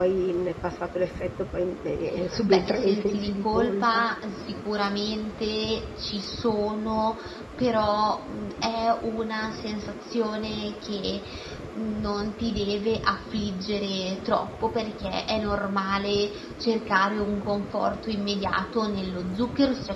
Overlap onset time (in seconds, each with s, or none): 2.3 s